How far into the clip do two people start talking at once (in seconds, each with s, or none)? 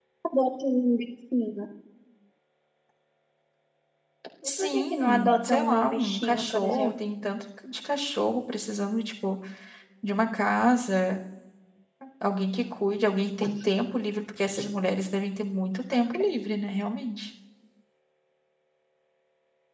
4.4 s